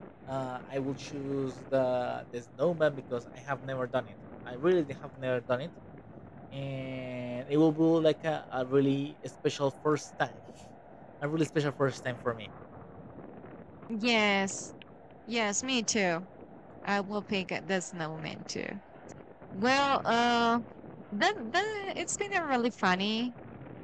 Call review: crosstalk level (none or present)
none